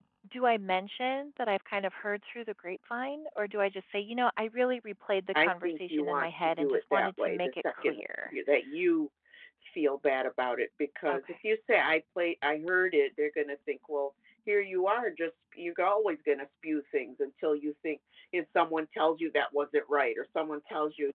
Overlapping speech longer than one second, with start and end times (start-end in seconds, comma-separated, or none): 5.3-8.3